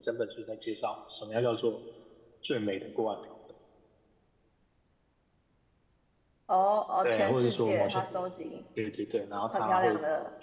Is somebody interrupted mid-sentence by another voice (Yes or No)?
Yes